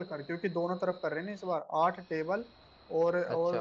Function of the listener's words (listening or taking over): listening